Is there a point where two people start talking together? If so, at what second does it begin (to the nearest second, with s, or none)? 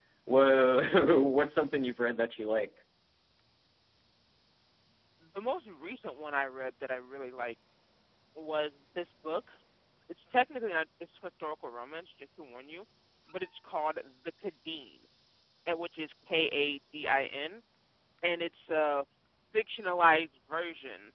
none